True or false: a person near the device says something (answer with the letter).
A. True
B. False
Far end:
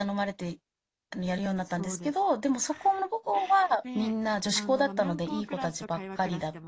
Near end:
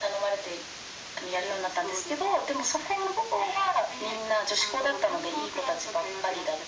B